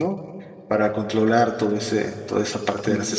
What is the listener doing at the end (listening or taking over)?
taking over